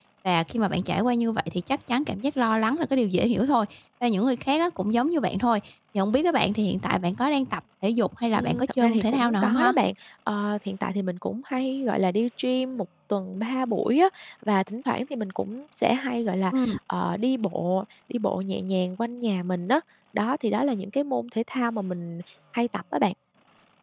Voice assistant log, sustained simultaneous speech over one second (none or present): present